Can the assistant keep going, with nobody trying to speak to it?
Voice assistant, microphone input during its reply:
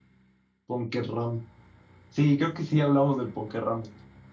No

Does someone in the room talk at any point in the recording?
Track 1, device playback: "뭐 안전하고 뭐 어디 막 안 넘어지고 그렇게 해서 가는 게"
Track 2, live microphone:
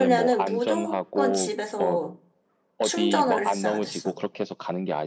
Yes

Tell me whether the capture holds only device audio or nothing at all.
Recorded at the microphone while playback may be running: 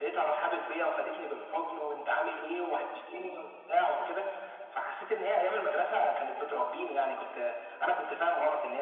Yes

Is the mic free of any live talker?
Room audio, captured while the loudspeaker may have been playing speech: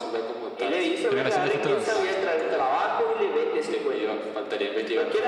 No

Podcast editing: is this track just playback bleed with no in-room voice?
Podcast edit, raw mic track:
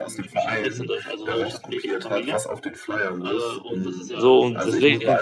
No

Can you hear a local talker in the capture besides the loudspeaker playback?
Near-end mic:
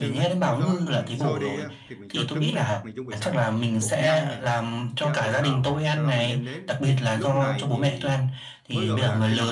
Yes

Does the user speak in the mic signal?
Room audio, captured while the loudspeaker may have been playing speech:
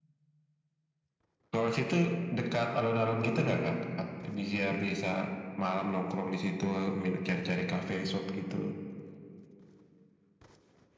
No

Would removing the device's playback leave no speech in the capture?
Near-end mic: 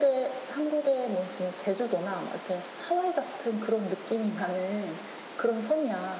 Yes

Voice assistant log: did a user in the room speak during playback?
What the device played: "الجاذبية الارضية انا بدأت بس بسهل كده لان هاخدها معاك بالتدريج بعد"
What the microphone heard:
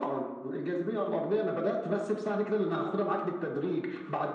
No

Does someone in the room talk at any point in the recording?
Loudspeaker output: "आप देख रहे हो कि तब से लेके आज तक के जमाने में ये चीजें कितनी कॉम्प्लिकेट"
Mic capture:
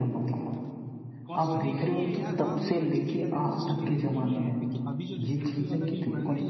Yes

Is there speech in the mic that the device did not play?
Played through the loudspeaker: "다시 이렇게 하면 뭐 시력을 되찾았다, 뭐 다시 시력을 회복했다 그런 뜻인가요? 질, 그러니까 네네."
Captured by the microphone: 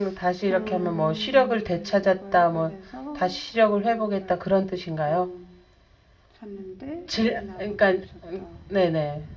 Yes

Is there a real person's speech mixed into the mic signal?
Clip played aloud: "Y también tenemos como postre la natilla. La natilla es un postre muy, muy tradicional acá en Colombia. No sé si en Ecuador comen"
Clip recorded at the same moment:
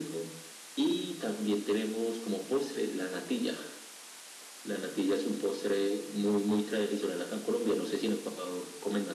No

